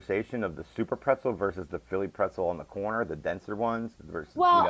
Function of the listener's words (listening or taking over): taking over